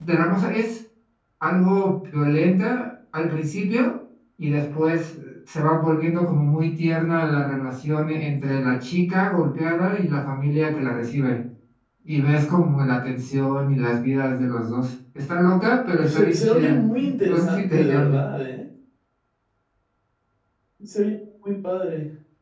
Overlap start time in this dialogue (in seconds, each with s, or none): 15.9 s